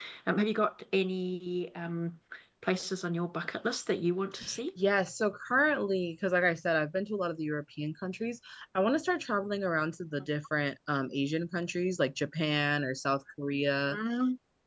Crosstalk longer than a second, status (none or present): none